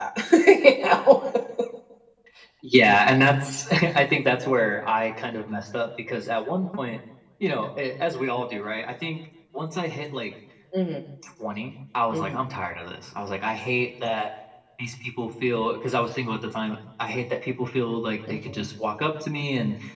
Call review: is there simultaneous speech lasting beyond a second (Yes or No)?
No